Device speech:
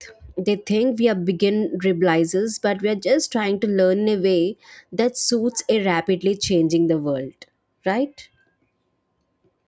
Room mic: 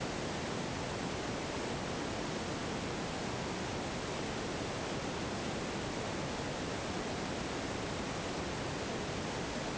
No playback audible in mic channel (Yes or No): Yes